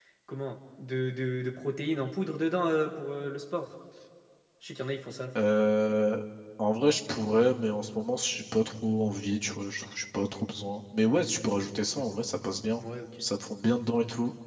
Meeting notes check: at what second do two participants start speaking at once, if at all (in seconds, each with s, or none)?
none